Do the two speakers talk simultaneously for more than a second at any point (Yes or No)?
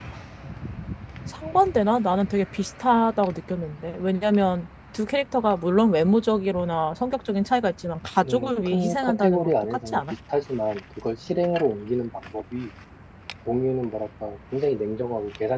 Yes